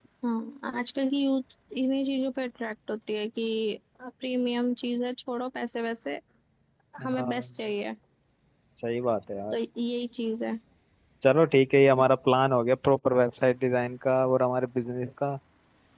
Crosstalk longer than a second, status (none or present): none